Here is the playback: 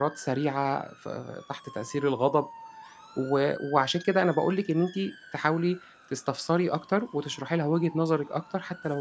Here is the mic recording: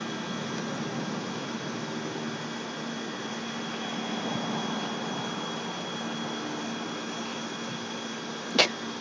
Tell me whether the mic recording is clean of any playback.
Yes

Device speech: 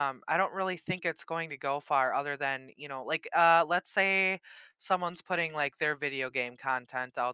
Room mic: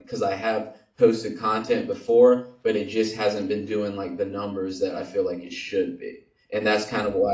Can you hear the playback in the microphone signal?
No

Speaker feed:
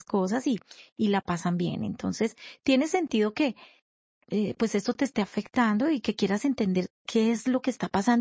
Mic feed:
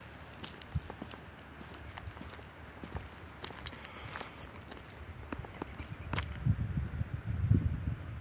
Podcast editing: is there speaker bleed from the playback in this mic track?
No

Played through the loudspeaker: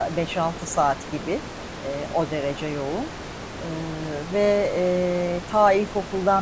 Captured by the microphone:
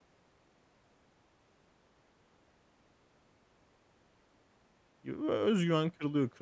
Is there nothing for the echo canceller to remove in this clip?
Yes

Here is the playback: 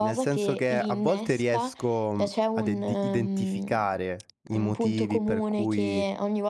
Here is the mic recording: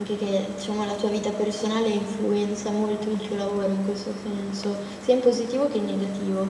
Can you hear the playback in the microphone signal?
No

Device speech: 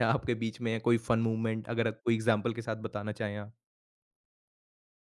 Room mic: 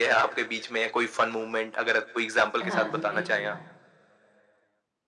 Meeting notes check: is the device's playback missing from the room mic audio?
No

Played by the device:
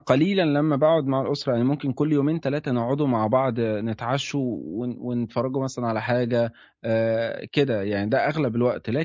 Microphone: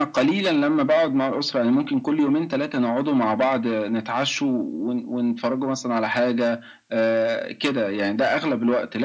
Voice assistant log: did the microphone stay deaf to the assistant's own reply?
No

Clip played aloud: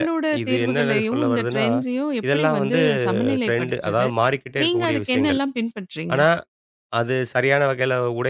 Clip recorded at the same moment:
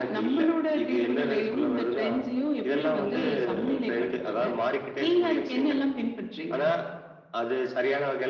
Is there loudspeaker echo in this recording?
Yes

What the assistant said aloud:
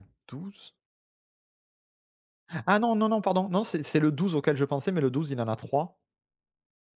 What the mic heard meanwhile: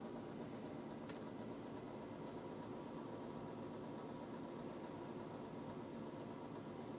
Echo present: No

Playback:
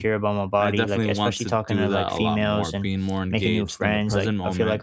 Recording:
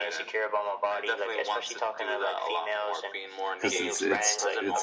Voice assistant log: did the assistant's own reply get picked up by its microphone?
Yes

